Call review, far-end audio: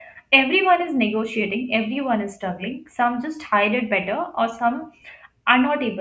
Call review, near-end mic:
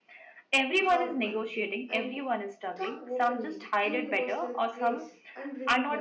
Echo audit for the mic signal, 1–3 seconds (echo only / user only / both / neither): both